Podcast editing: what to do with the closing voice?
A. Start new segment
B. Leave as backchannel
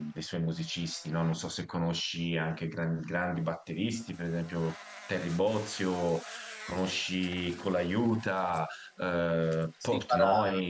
A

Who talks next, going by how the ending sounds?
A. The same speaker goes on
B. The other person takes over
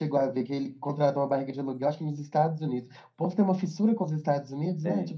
B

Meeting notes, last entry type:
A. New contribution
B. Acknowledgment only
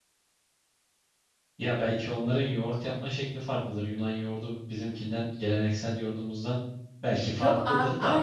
A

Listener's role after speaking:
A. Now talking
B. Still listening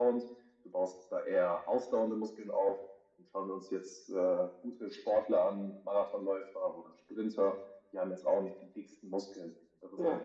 B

